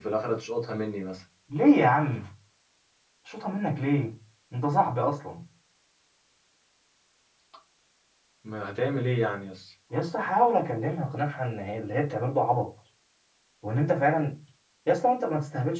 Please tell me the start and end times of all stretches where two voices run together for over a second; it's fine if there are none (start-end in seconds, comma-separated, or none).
none